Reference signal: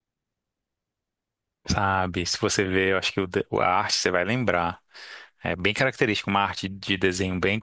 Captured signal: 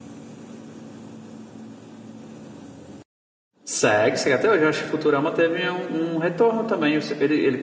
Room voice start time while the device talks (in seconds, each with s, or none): 3.6 s